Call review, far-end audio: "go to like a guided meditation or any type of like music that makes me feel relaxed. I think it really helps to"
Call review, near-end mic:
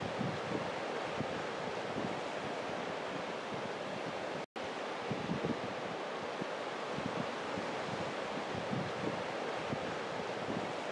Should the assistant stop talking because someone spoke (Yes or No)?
No